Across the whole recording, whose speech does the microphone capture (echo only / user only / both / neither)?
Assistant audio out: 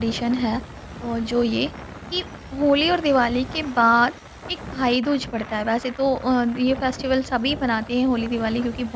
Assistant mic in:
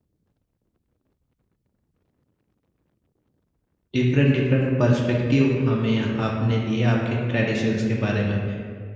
user only